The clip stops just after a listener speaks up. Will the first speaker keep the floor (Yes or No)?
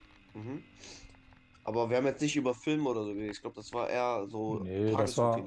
No